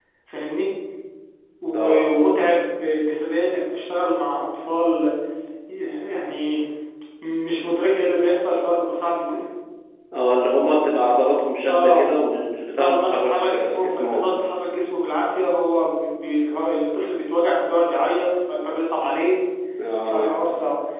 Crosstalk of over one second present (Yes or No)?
Yes